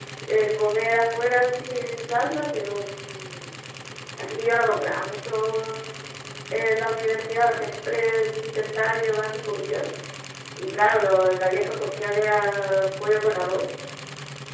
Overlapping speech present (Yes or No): No